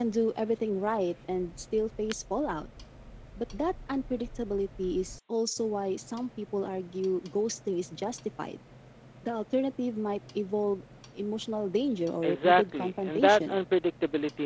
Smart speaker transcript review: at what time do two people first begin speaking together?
12.2 s

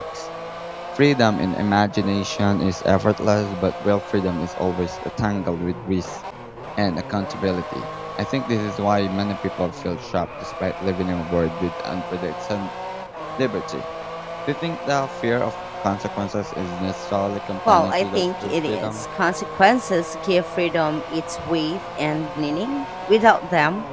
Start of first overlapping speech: 17.6 s

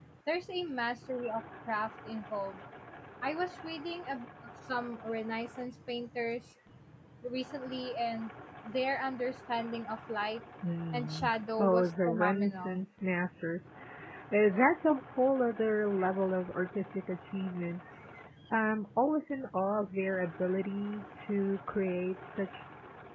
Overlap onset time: 10.9 s

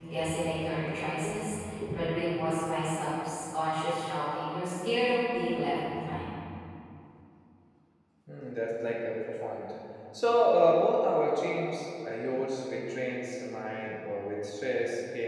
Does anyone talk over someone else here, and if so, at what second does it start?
none

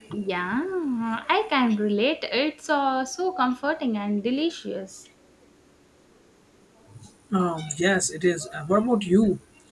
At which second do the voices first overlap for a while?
none

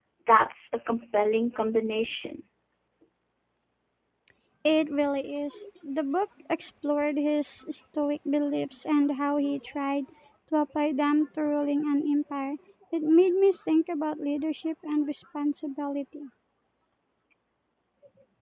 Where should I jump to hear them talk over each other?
none

